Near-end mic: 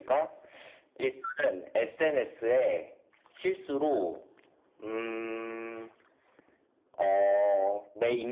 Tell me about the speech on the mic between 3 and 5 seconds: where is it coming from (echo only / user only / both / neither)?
echo only